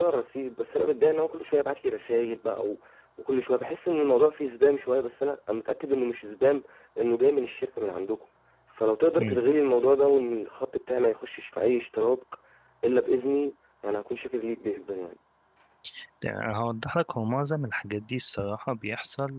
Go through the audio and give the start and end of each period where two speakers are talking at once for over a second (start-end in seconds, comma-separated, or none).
none